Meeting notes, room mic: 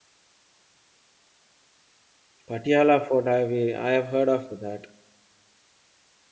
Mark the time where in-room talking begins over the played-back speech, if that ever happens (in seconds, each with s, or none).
2.5 s